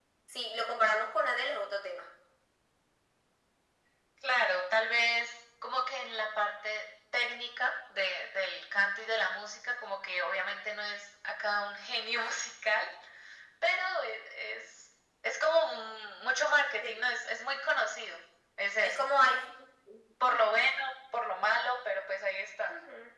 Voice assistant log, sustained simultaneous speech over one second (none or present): none